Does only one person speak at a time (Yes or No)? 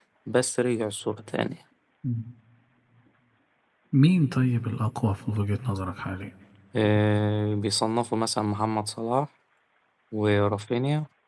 Yes